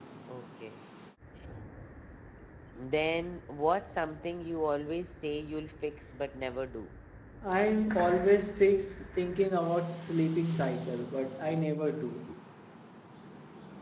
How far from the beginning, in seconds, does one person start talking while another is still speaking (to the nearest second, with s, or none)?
none